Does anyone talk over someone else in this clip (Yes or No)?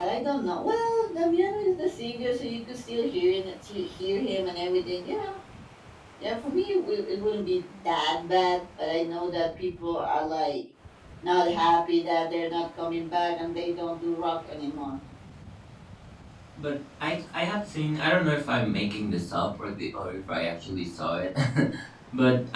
No